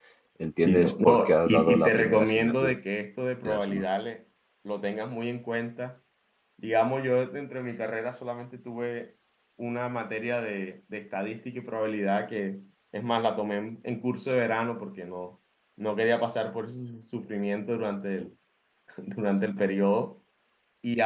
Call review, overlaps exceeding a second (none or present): present